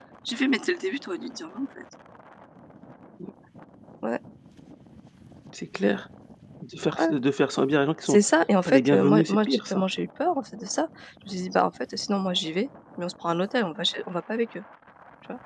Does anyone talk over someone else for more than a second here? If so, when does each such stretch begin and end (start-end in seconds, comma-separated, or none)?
8.6-9.8